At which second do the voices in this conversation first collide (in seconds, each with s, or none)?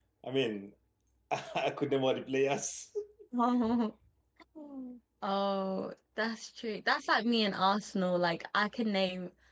none